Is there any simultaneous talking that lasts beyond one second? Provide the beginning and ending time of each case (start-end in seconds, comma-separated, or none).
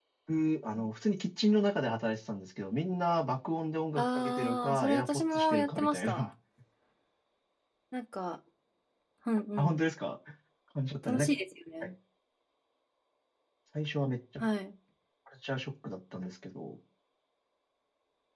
4.0-6.2